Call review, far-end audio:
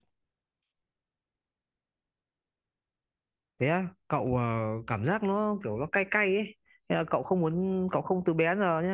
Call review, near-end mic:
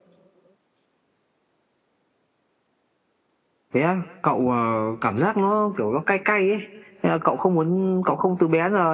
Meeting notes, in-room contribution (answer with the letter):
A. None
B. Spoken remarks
A